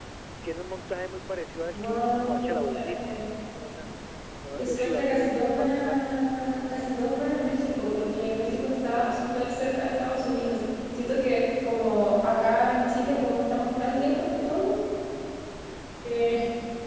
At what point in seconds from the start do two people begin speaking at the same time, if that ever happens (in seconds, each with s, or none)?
1.7 s